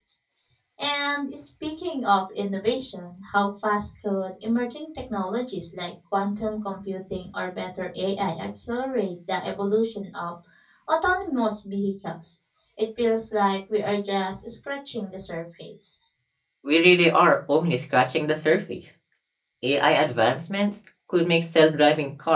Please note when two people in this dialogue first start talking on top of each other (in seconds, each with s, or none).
none